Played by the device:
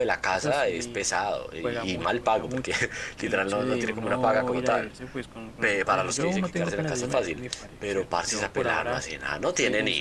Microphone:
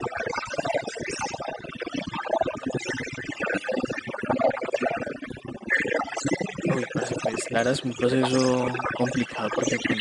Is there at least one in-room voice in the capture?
Yes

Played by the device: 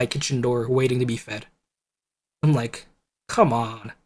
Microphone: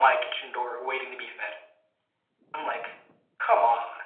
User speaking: No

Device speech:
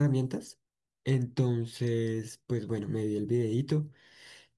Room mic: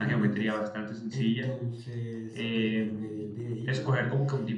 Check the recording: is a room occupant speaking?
Yes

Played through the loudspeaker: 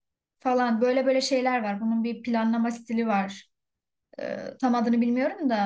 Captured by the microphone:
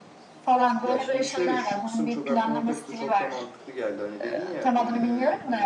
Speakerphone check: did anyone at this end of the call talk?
Yes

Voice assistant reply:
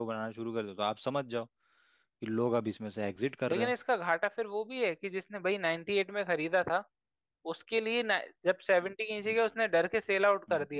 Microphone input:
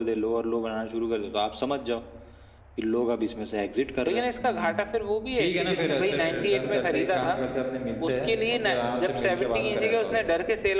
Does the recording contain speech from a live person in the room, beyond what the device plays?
Yes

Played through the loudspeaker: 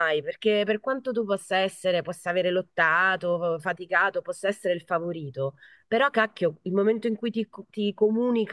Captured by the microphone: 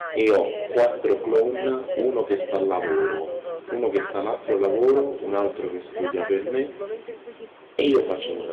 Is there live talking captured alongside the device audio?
Yes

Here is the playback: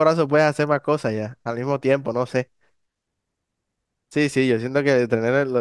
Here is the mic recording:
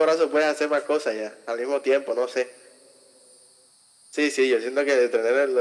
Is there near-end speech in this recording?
No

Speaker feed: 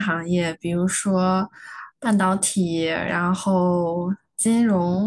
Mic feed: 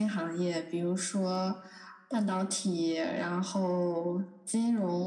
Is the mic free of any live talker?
Yes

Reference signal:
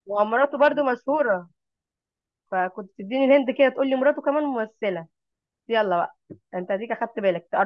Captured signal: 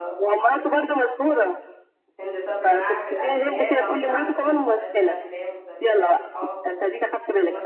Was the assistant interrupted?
Yes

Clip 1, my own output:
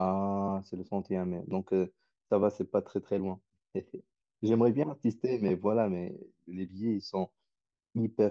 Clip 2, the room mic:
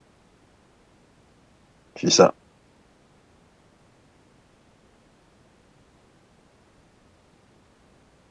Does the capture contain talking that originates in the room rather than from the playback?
Yes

